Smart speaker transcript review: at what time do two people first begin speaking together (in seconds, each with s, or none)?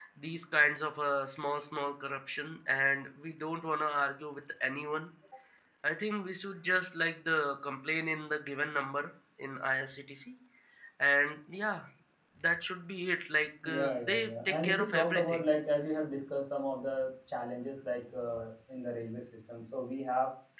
13.6 s